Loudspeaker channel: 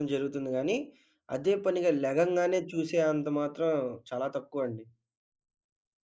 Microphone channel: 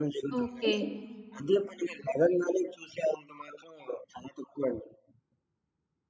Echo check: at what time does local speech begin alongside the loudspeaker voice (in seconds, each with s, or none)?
0.4 s